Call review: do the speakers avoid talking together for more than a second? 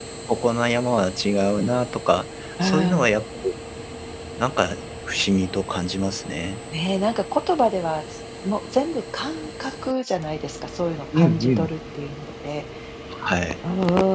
Yes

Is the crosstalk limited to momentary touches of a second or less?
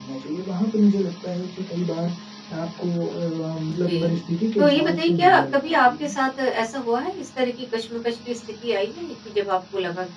No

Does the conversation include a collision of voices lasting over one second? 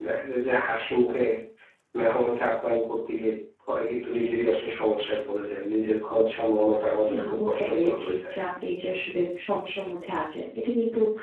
Yes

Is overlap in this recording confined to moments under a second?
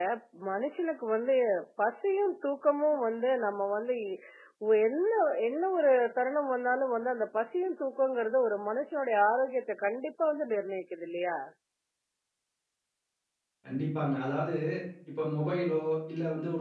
Yes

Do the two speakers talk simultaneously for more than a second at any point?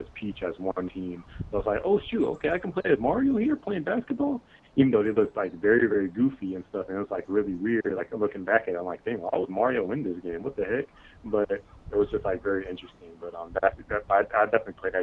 No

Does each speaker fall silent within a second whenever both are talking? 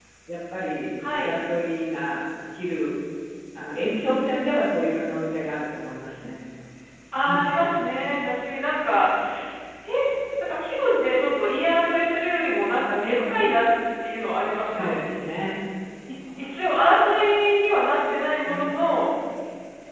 Yes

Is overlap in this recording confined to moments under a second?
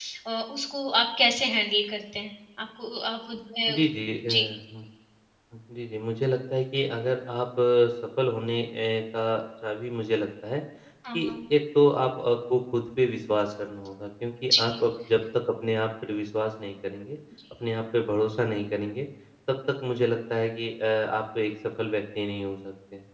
Yes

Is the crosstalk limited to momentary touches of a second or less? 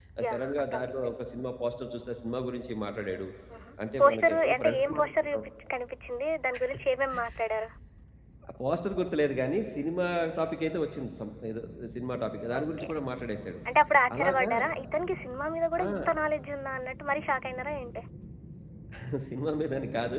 No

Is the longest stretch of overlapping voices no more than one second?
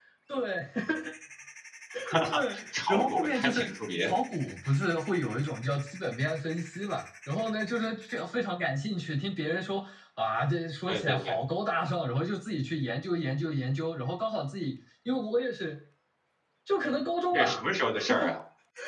No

